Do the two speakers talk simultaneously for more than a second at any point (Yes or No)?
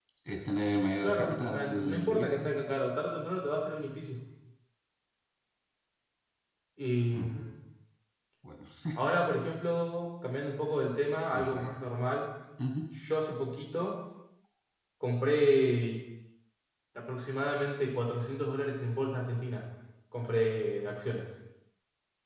Yes